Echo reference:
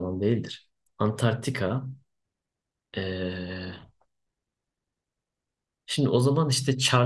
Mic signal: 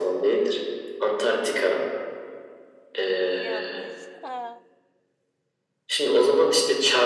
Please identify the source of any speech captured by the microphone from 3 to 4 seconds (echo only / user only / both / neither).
both